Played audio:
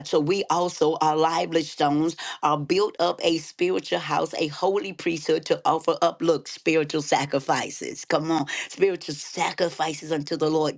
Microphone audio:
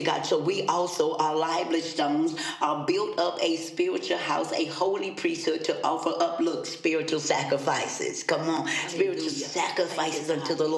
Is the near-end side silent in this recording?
No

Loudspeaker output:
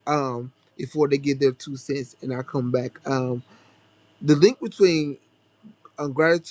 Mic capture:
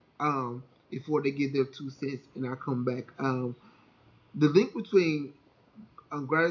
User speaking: No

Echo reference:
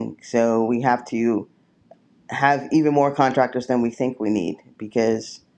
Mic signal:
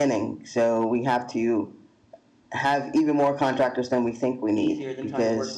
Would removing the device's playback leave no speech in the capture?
No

